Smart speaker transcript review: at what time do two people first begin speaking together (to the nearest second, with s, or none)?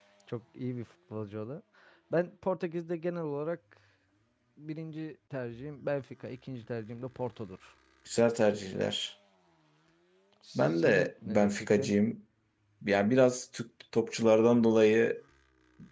11 s